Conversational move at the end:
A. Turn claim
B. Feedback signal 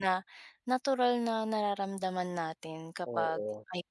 B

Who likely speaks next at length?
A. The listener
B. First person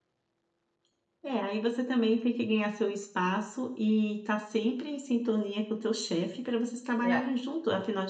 B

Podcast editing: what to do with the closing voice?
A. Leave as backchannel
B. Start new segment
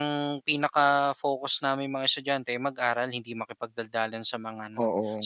A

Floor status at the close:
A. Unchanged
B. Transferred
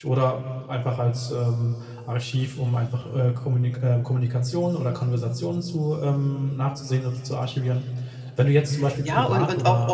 B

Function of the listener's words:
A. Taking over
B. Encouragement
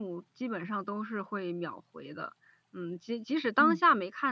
B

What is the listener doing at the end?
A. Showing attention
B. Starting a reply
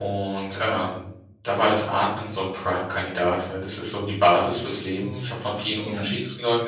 A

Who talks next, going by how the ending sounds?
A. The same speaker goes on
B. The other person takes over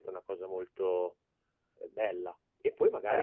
A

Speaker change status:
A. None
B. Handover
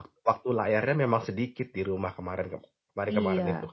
B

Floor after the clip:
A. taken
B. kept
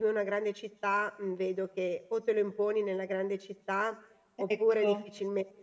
B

